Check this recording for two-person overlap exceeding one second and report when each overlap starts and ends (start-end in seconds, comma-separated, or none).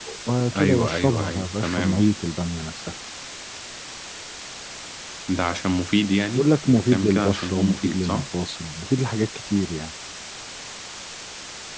0.6-2.0, 6.3-8.2